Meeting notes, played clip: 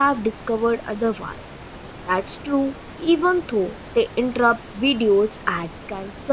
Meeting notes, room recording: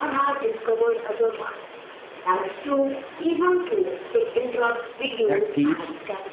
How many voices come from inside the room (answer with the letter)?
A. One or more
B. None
A